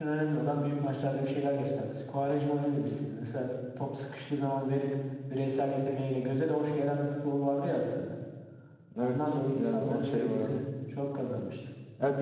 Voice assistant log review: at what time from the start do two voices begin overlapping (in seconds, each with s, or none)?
9.0 s